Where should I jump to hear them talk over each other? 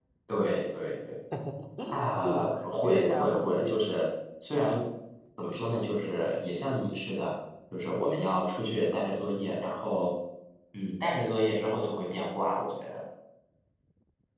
2 s

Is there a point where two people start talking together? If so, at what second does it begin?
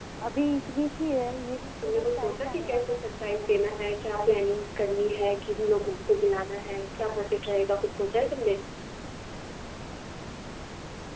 2 s

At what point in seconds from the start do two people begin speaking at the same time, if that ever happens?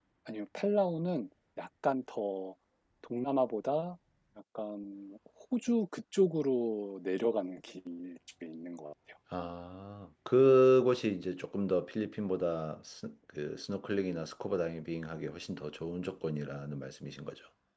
none

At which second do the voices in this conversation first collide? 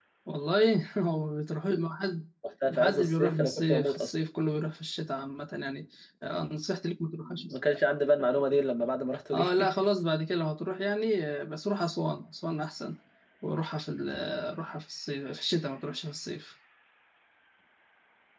3 s

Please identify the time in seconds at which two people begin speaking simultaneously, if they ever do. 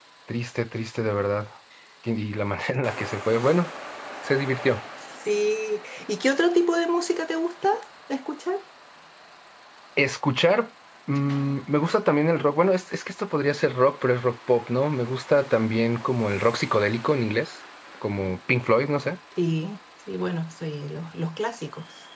none

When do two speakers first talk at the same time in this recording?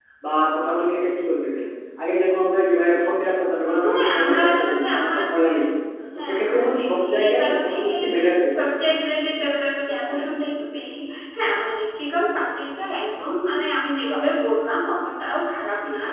4 s

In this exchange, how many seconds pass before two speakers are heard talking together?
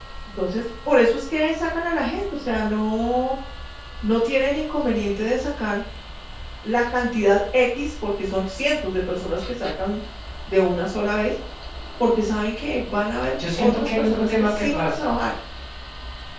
13 s

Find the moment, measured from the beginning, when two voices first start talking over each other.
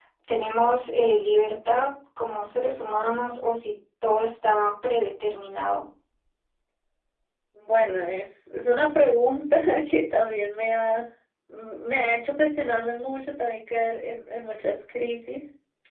none

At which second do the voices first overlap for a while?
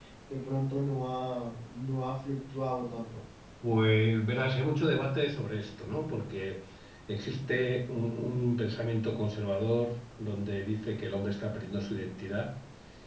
none

